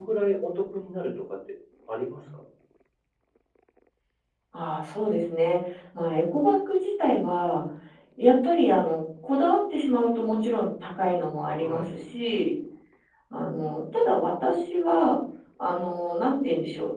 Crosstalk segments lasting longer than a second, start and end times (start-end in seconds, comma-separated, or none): none